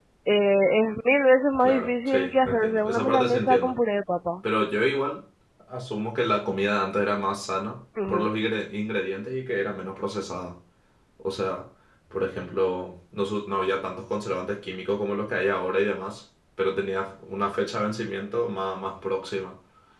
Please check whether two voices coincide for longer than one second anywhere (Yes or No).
Yes